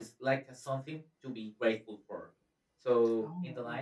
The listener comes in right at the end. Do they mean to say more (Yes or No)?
No